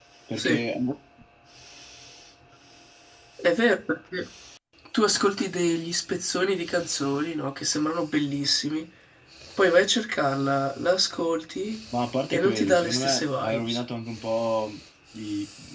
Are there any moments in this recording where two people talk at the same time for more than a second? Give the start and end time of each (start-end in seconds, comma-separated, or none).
12.3-13.8